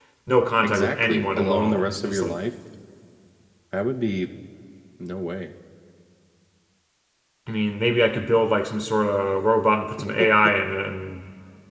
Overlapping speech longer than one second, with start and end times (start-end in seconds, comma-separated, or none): 0.6-2.4